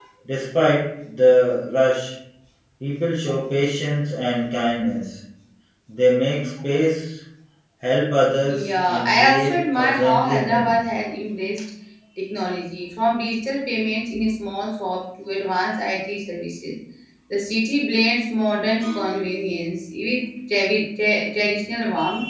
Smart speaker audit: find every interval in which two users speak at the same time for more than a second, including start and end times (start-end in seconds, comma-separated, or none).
8.5-10.8